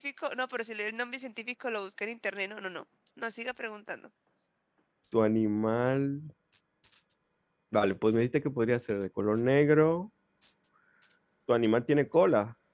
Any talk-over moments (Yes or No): No